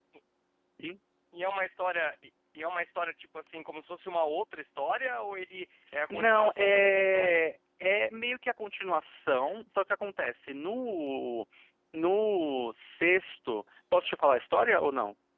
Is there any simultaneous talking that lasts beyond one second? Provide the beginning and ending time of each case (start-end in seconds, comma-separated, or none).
6.1-7.4